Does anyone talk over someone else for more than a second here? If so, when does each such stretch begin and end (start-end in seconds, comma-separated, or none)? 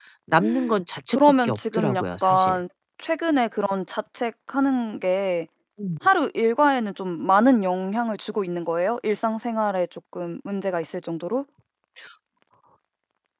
1.1-2.6